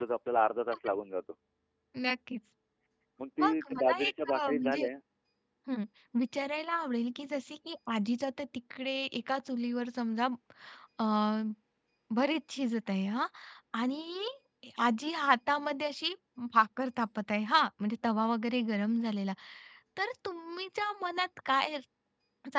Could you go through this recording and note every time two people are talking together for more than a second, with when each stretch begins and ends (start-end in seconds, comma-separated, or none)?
3.4-4.9